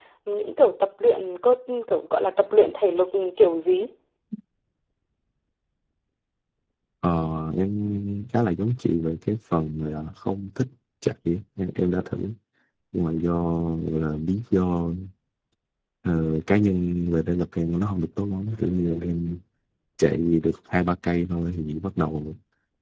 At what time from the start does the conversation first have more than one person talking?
none

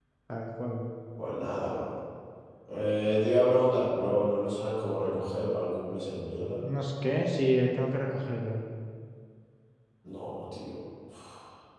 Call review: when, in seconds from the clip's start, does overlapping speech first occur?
none

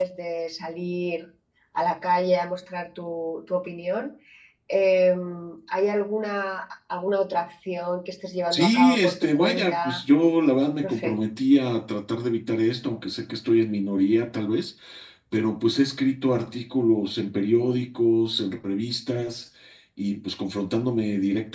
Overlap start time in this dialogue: 8.5 s

